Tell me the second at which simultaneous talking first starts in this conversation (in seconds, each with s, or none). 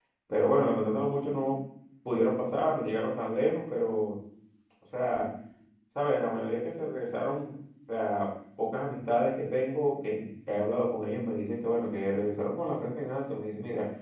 none